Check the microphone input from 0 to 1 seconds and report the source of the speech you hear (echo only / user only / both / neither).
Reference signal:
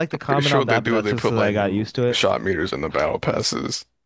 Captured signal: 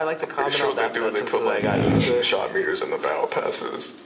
echo only